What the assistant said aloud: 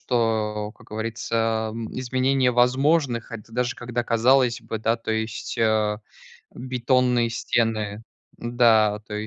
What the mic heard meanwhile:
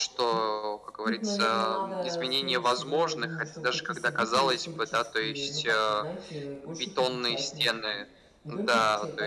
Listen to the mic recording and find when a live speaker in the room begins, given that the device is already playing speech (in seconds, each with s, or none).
0.3 s